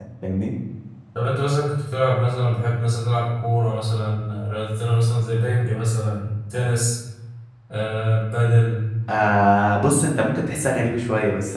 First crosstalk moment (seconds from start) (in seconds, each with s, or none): none